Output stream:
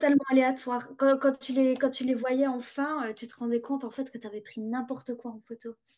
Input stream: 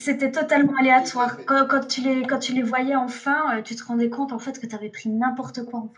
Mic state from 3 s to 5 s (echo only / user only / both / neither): echo only